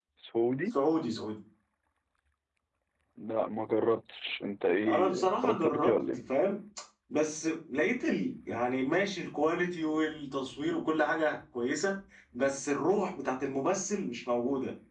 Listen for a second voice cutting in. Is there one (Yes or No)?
Yes